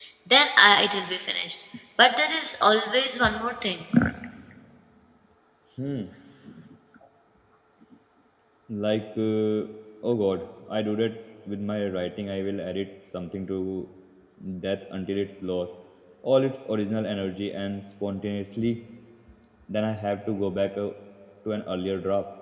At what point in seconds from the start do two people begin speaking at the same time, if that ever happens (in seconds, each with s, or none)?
none